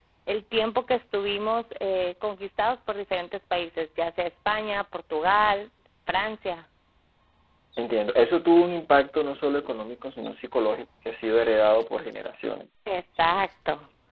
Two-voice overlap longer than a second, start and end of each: none

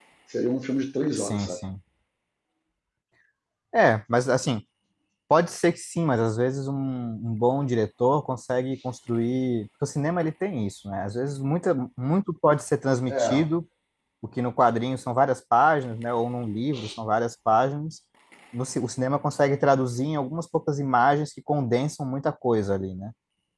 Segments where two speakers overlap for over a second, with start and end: none

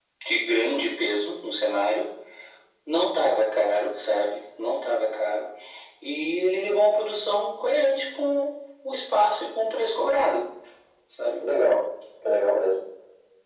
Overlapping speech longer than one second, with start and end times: none

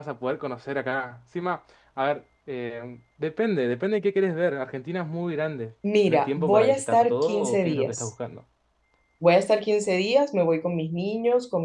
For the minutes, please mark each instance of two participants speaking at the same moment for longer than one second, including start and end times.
6.1-8.1

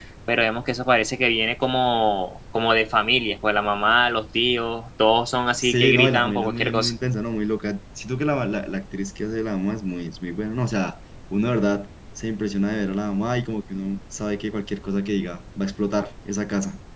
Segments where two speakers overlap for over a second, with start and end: 5.6-6.9

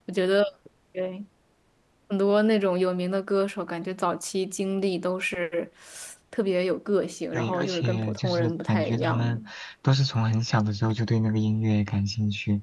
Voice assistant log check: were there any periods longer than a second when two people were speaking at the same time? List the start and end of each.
7.3-9.4

